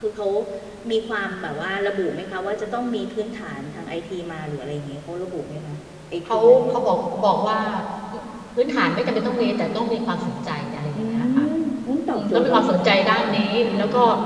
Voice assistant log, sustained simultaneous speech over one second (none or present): present